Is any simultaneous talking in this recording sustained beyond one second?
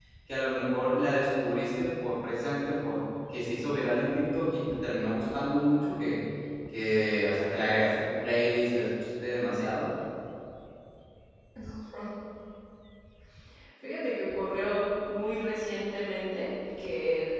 No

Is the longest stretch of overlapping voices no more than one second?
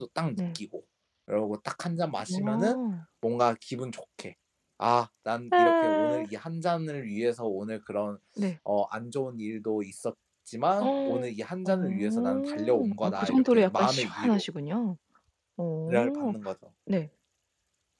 No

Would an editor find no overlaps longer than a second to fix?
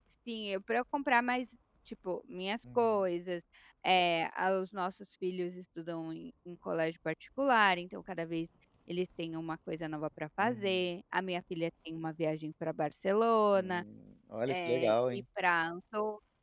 Yes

